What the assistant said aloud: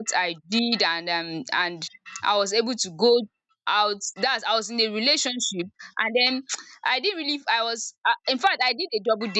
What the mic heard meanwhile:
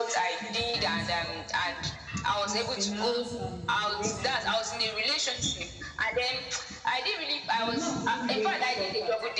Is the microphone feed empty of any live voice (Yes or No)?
No